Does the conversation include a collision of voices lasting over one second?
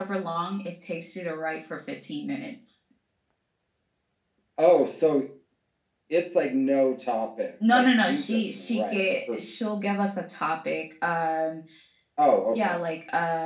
Yes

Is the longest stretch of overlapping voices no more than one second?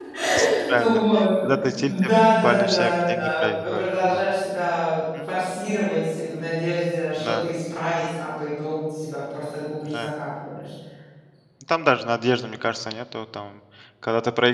No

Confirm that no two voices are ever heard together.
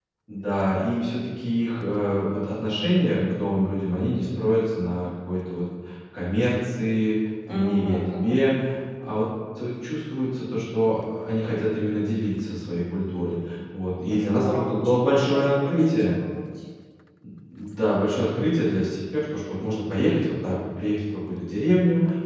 No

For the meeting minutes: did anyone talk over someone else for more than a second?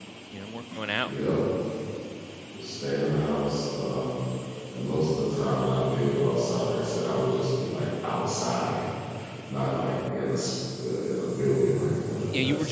No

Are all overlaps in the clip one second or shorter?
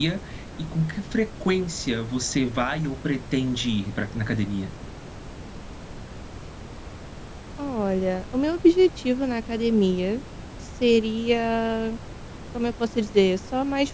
Yes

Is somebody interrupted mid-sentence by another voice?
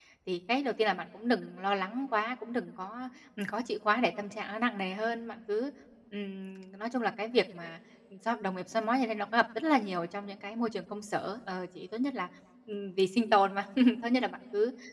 No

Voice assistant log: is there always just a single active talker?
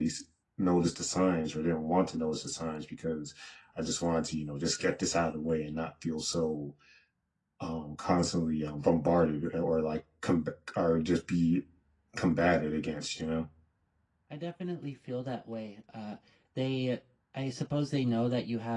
Yes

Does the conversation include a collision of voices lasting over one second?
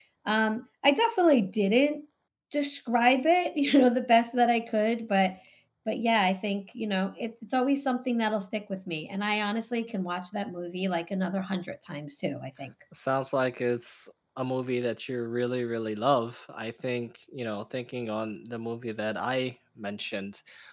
No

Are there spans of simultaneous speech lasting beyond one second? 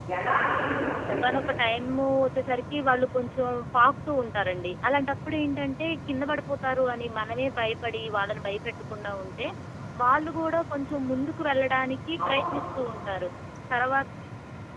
No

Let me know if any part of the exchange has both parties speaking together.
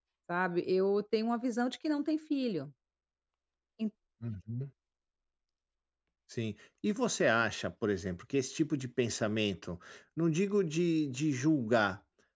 No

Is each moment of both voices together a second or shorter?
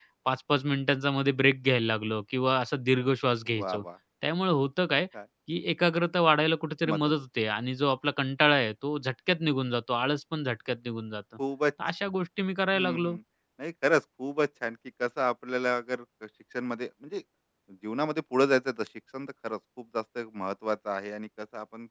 Yes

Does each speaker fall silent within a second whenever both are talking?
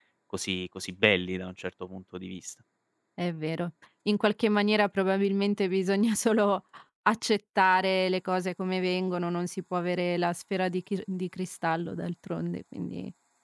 Yes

